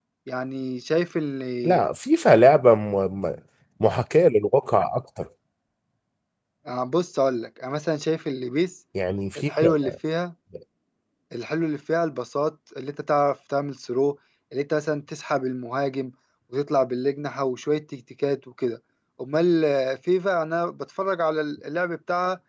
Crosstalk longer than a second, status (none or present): none